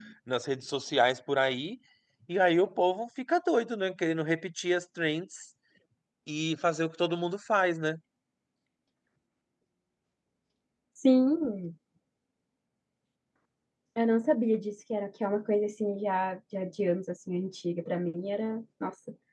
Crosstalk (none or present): none